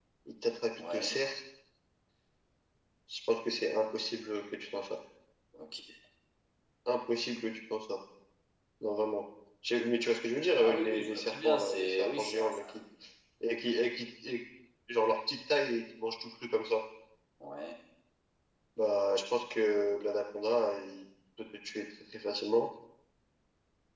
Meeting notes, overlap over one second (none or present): present